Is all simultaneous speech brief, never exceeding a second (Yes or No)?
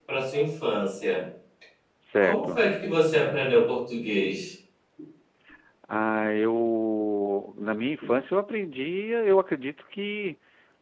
Yes